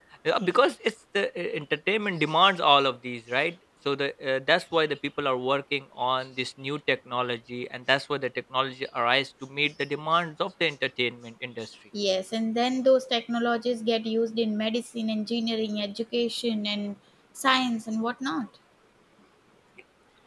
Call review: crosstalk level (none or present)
none